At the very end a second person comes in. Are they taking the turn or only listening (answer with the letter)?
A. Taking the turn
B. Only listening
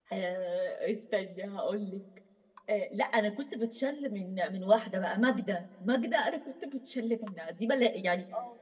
B